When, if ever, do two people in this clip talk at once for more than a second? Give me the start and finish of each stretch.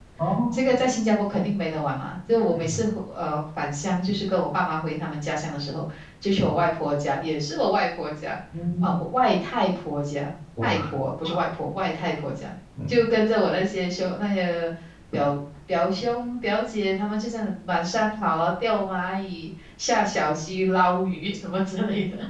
none

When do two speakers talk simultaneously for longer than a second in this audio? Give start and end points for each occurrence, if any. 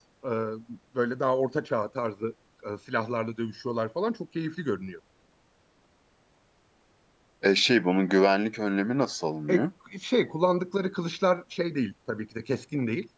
none

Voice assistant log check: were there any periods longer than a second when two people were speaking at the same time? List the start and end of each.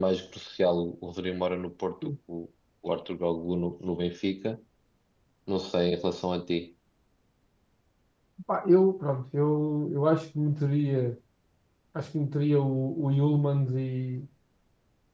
none

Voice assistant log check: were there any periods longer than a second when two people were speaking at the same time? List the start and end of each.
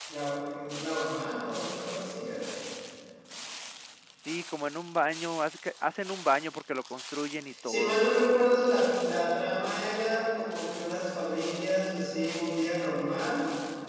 none

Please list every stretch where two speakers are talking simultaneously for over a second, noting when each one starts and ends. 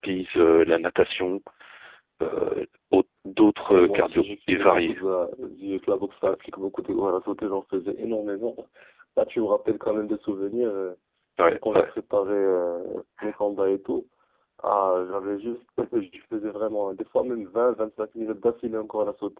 3.7-5.0

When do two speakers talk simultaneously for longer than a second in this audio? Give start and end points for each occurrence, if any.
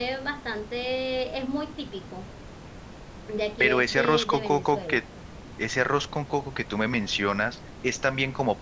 3.6-5.0

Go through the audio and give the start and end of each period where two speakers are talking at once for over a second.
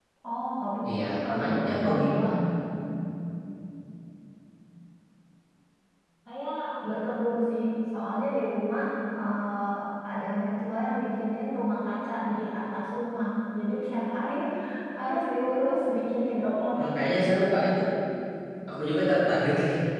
0.9-2.2

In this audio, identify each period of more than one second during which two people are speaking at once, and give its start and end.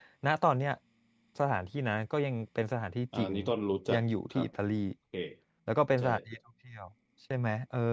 none

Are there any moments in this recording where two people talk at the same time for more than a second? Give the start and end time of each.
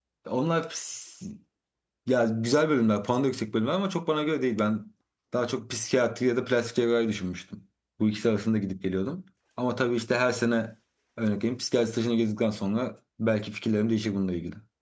none

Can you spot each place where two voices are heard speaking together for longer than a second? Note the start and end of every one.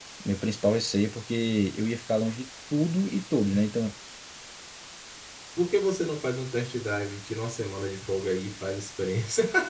none

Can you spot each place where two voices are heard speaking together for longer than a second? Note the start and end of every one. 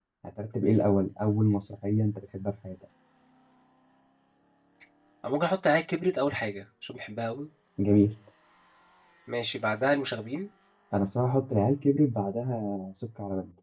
none

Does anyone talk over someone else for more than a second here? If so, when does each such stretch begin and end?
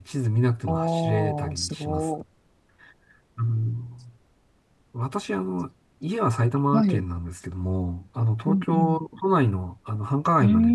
0.7-2.1

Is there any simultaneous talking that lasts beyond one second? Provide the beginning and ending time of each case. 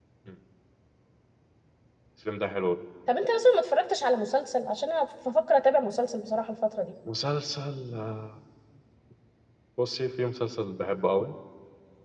none

